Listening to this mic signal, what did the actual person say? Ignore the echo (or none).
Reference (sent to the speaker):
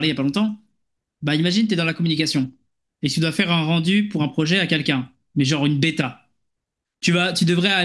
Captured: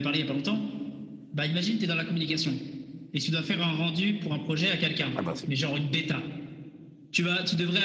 Ah, bah, c'est.